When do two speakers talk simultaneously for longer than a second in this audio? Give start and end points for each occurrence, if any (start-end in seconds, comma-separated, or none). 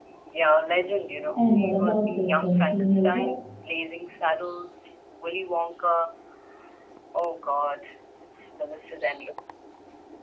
1.3-3.3